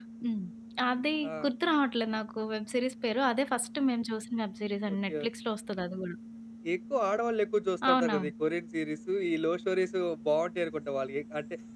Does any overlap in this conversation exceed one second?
No

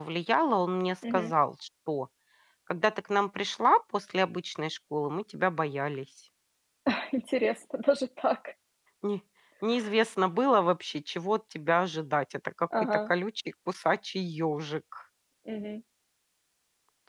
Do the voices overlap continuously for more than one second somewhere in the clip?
No

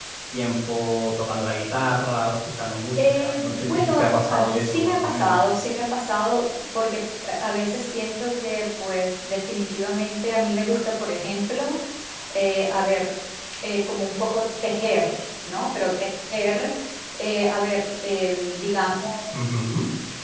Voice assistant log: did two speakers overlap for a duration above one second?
Yes, from 3.0 s

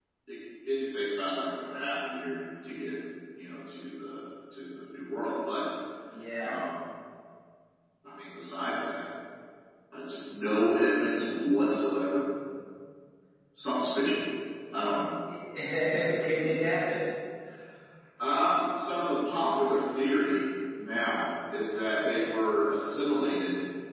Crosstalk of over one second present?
No

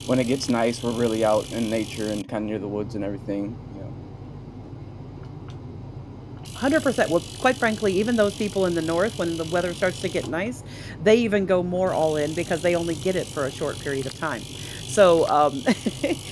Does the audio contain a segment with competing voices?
No

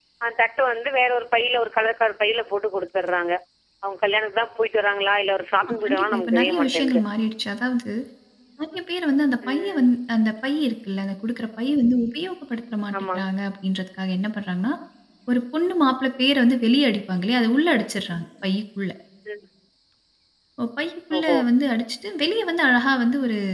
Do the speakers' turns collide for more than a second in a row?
Yes, from 5.6 s

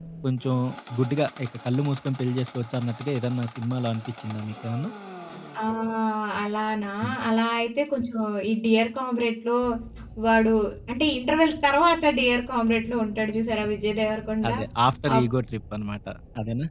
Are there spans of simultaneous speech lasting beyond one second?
No

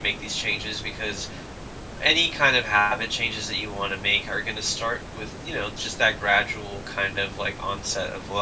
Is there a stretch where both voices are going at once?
No

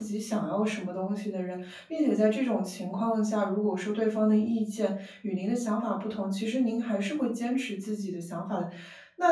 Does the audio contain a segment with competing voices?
No

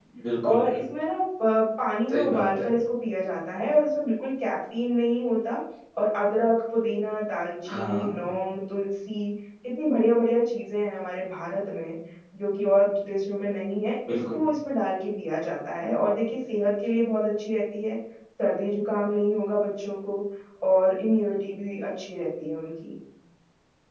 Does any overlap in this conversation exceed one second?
No

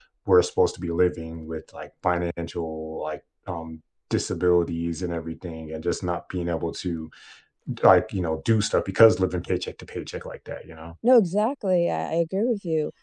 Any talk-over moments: No

